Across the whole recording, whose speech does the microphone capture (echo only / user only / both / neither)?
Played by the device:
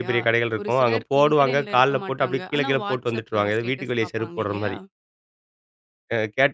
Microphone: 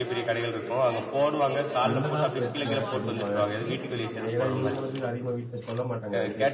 both